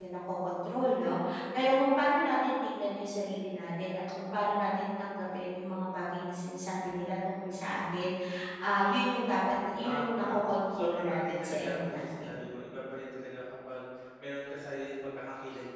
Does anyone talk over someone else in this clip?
Yes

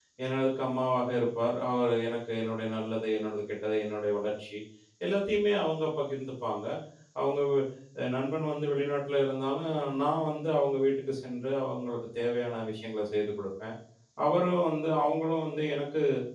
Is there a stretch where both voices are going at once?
No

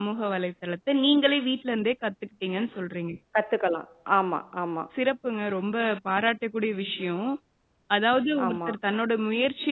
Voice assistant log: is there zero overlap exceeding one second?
Yes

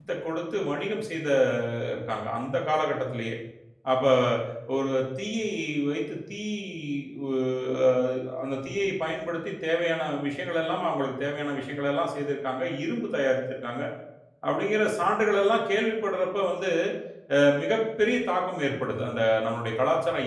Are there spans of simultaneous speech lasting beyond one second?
No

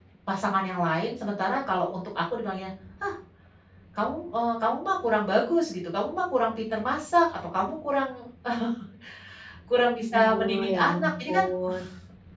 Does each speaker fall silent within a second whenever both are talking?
No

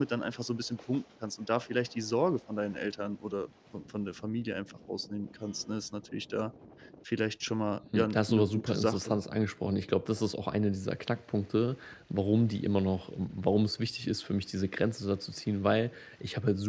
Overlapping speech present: Yes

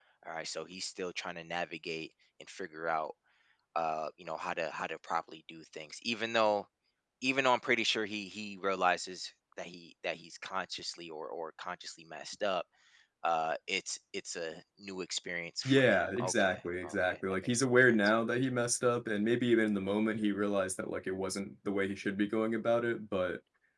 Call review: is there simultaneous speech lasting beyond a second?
Yes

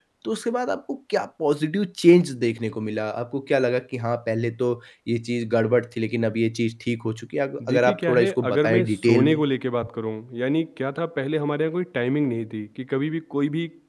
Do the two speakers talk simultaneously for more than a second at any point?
Yes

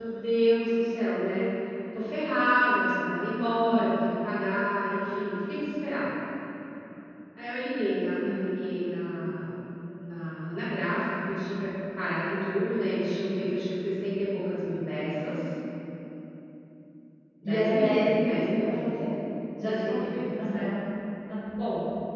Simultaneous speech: Yes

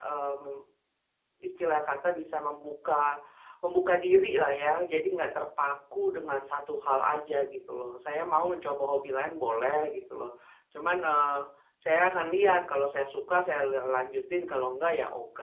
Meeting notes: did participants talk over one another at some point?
No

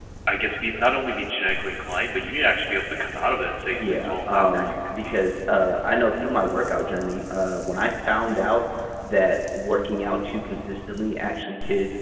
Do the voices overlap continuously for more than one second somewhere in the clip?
Yes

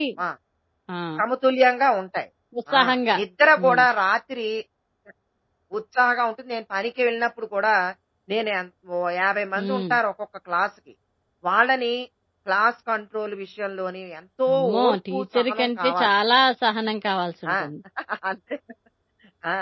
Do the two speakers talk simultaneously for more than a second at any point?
Yes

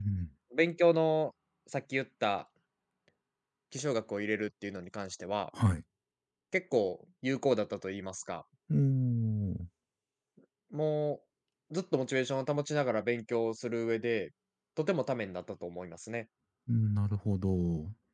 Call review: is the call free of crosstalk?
Yes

